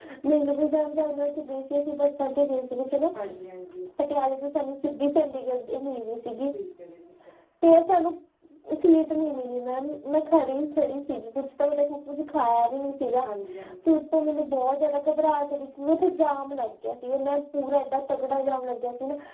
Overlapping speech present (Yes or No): No